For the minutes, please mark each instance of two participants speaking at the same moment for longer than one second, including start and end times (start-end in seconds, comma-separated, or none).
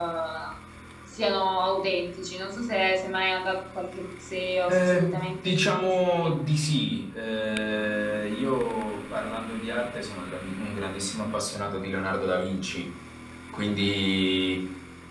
4.7-6.3